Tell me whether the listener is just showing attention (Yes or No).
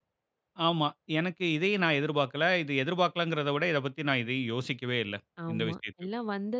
No